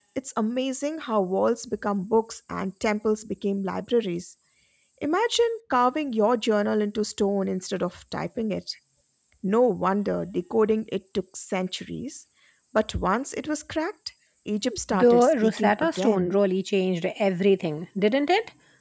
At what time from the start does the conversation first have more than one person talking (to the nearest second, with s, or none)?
15 s